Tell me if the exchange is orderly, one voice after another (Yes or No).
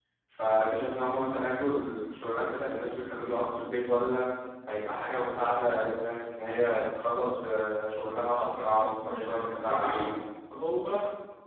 No